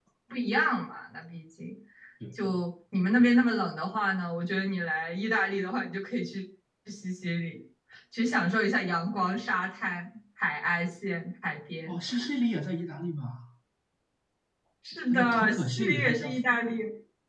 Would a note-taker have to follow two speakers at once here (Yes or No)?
Yes